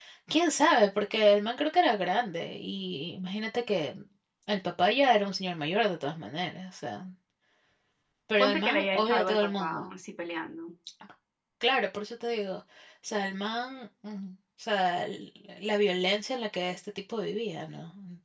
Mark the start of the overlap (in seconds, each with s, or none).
8.4 s